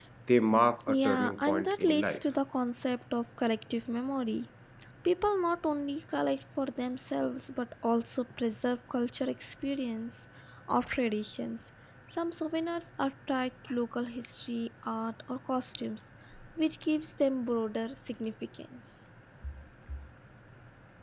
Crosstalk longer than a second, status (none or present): present